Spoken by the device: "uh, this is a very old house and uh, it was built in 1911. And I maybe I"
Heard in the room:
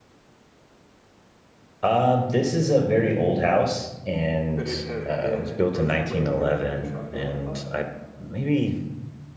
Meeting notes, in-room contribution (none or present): present